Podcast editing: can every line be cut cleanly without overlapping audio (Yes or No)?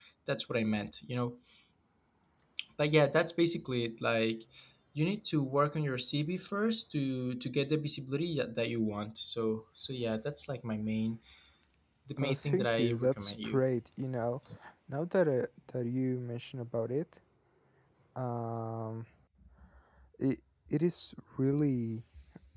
No